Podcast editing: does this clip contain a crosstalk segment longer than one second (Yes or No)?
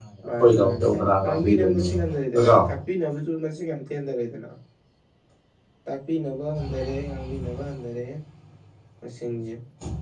Yes